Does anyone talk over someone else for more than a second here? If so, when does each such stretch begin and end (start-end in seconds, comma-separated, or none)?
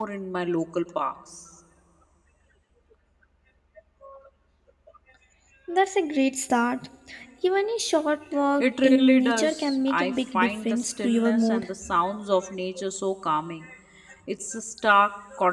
8.6-11.7